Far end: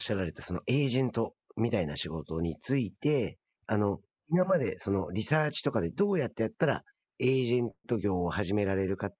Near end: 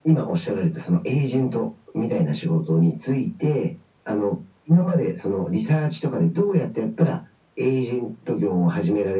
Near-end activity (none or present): none